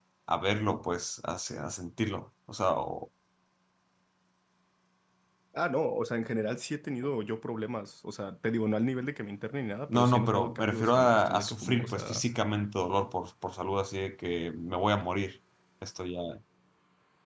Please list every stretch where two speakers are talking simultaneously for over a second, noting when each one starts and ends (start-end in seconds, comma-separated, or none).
9.9-12.2